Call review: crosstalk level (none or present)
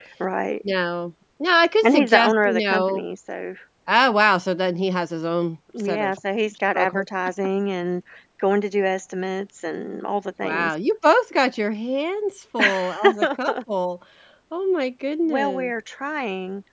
present